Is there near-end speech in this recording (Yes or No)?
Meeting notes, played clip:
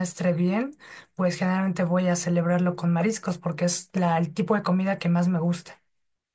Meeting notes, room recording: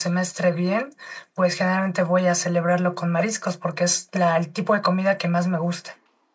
No